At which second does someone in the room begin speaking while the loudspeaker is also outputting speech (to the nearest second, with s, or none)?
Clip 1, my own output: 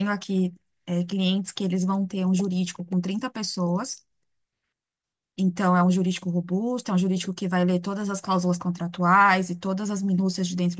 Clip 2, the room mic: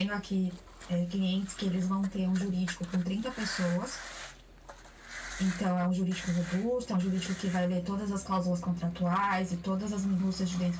none